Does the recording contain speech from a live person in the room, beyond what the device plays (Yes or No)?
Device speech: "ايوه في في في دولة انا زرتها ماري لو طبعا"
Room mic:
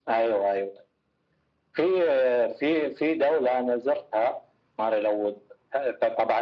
No